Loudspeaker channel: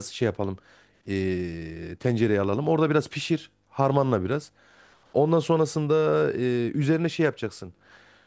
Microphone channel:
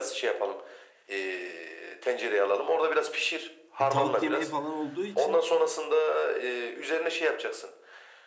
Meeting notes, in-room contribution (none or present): present